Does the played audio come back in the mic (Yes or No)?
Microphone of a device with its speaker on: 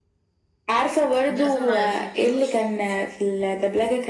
Yes